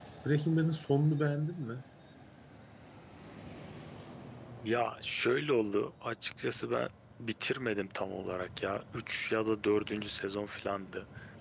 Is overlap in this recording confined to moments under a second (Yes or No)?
Yes